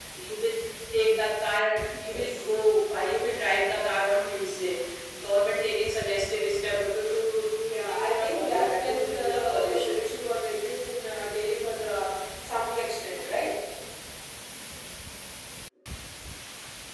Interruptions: present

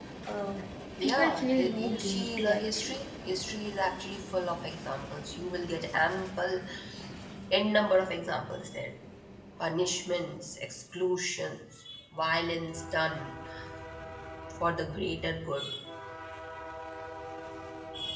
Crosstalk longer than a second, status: present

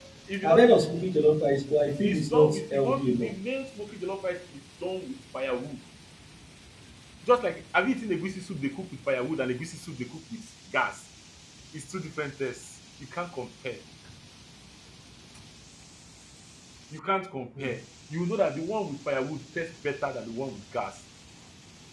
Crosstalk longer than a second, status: present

